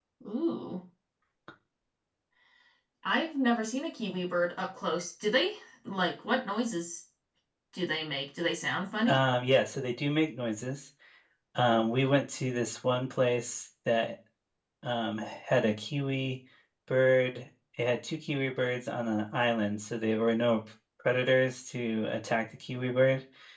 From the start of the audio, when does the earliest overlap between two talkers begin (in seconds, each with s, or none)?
none